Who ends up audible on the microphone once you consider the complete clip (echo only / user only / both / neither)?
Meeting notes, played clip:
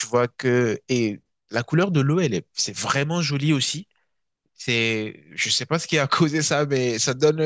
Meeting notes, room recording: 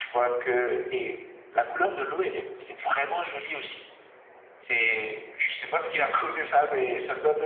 echo only